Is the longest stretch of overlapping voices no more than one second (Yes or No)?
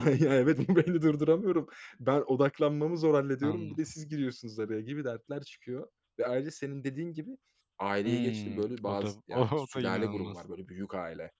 No